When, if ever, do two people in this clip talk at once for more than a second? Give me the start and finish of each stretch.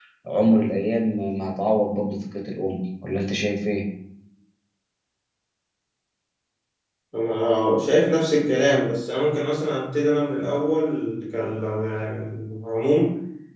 none

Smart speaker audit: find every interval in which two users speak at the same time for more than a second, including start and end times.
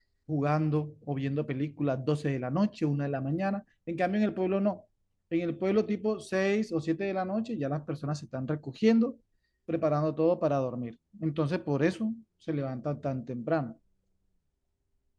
none

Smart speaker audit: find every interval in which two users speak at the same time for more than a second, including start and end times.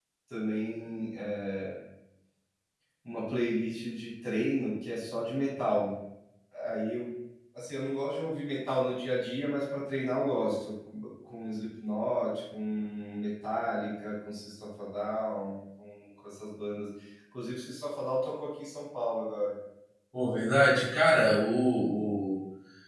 none

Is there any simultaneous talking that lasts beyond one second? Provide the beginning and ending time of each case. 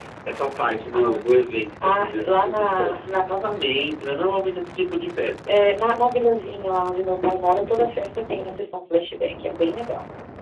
1.8-3.1

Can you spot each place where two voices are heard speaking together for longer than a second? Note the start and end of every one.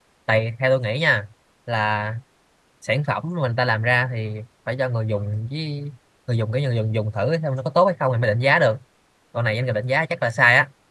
none

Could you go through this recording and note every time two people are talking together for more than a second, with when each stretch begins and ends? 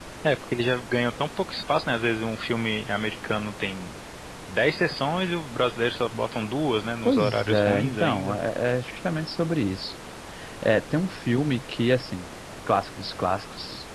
7.0-8.4

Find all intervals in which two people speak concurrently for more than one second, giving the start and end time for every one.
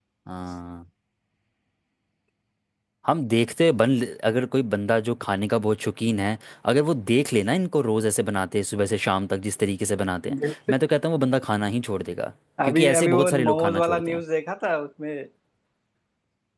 12.7-14.2

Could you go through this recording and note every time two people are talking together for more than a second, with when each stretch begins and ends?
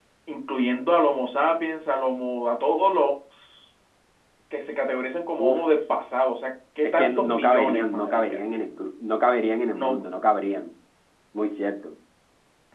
6.8-8.4

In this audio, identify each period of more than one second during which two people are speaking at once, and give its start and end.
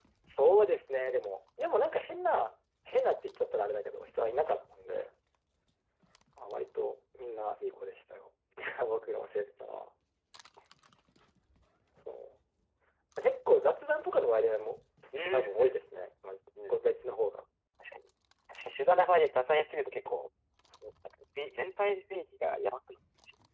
none

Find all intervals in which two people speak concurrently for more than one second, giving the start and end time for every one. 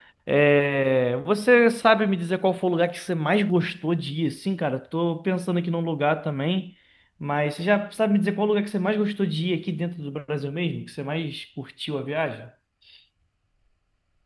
none

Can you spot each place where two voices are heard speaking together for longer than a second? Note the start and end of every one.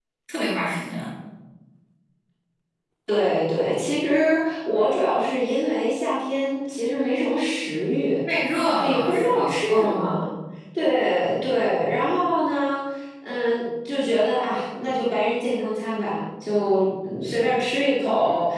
8.8-10.2

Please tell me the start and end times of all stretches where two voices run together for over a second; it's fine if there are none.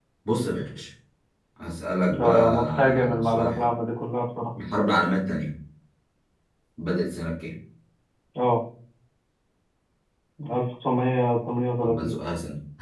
2.1-3.7

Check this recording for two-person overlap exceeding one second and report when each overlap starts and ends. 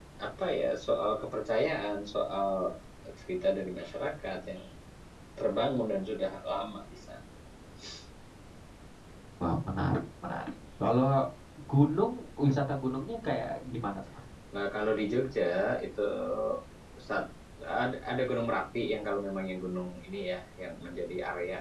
none

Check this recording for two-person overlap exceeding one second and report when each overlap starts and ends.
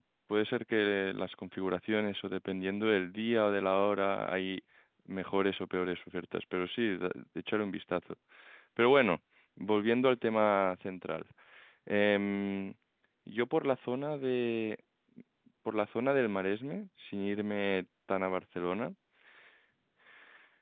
none

